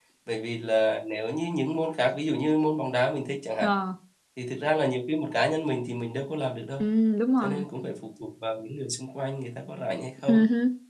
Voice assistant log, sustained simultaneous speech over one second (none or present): none